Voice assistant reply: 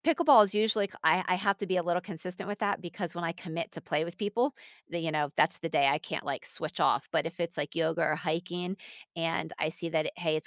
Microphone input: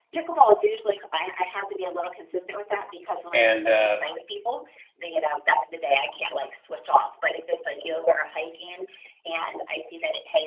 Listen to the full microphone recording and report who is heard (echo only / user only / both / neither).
both